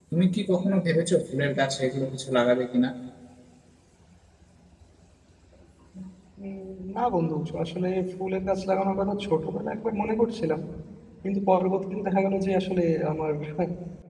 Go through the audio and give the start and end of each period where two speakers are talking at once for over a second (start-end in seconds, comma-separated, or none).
none